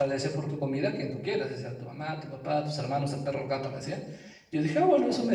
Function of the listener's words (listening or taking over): listening